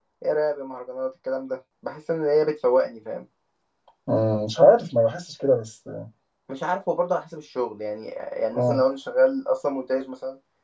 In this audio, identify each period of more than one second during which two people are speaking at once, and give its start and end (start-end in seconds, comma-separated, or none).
none